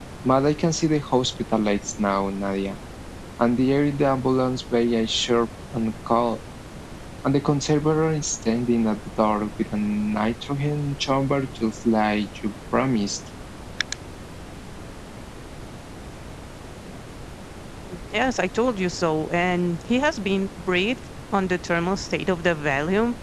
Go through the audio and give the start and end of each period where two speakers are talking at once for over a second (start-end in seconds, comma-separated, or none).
none